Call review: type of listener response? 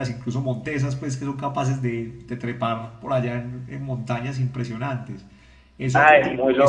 taking over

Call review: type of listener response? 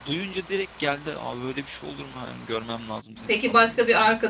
taking over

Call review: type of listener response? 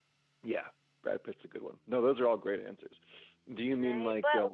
taking over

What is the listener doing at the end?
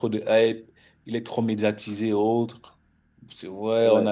listening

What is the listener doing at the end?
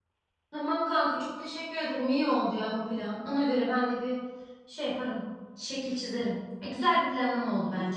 taking over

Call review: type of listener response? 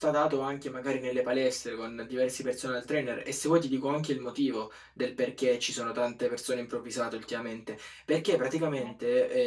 listening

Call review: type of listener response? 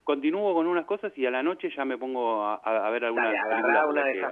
taking over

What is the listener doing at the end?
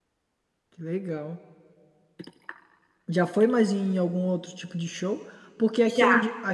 listening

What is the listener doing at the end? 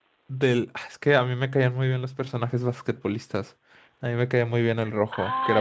taking over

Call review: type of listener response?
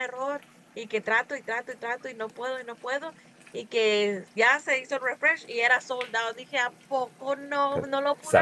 taking over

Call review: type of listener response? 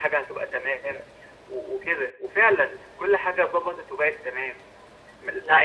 listening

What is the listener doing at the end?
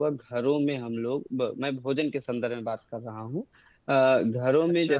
listening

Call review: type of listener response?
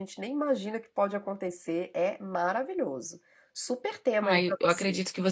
taking over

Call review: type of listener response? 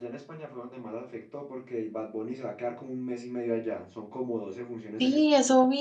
taking over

